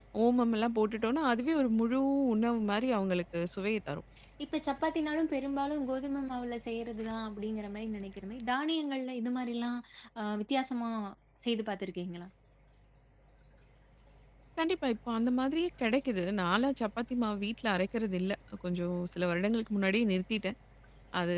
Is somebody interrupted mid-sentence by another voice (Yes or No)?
No